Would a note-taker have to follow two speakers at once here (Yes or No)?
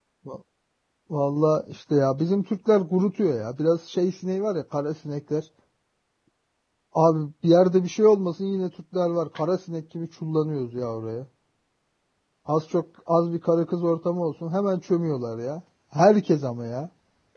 No